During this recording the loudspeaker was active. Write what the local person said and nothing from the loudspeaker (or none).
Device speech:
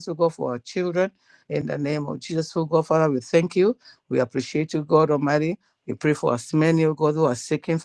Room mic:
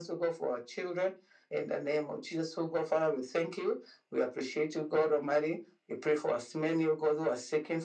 none